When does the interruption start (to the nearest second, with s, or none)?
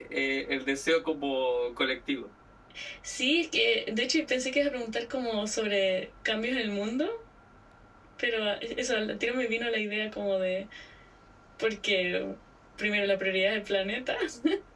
none